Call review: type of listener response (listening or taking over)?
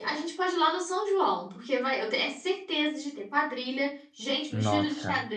listening